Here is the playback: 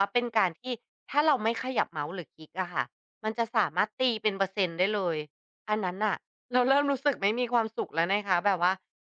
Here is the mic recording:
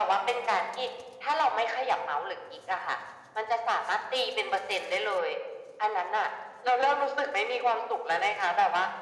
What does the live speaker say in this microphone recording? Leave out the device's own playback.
none

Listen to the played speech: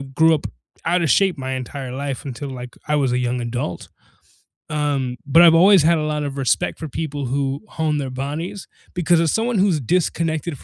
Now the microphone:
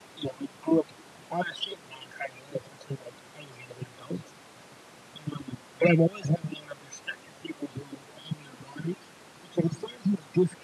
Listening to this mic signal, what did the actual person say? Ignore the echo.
none

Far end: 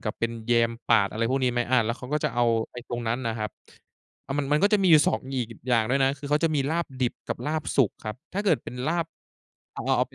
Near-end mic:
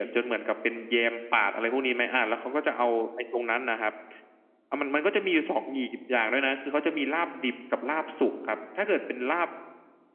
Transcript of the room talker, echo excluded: none

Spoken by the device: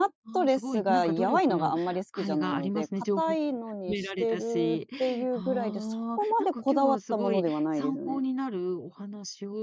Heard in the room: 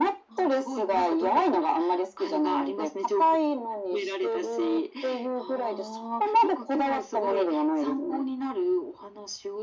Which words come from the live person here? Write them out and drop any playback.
none

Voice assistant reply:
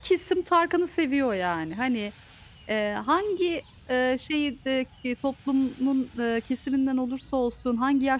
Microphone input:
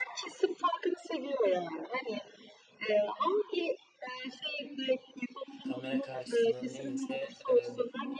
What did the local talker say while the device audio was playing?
kamera karşısında neyse, eee,

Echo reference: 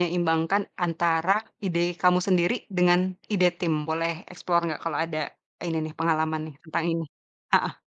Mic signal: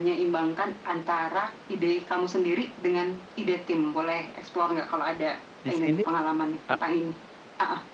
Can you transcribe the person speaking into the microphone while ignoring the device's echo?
di sini a

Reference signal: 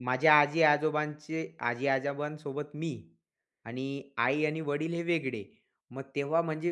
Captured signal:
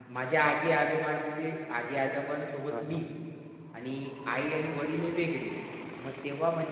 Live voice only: हां, हां.

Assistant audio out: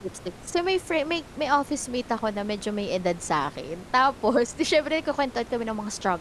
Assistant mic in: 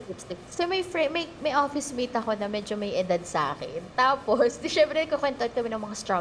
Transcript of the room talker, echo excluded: none

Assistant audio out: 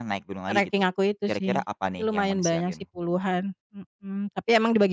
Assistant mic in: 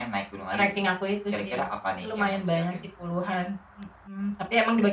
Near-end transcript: none

